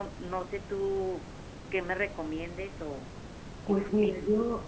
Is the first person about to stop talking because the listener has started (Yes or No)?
Yes